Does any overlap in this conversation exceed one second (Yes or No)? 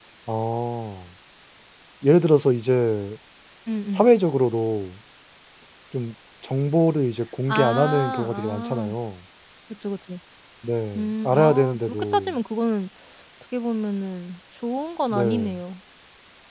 Yes